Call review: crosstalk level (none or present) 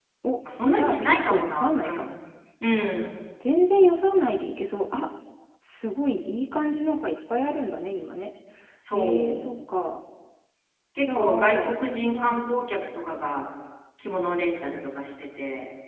present